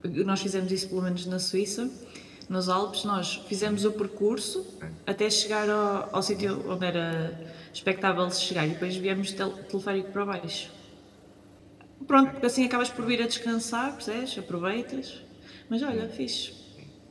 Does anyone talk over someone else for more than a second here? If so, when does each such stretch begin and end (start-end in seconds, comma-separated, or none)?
none